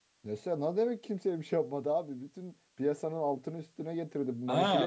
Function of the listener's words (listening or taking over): taking over